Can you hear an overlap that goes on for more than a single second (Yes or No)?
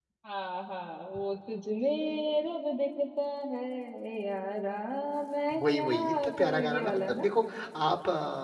Yes